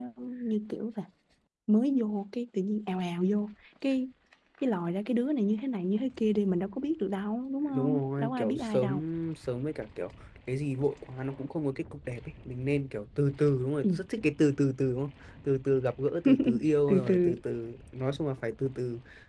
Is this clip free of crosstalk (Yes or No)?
No